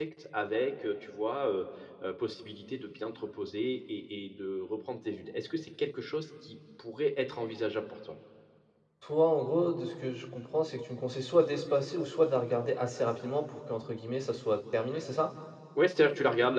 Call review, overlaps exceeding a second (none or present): none